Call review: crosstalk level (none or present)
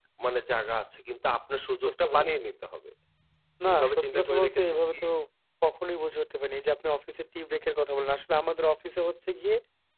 present